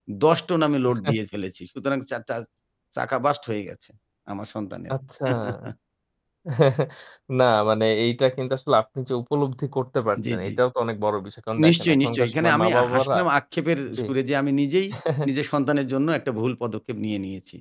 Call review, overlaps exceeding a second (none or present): present